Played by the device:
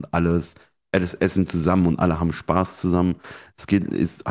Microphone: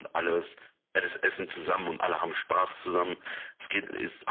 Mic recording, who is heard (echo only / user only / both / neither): echo only